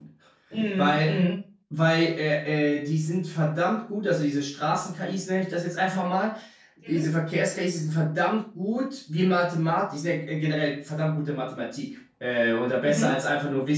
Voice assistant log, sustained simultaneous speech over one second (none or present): none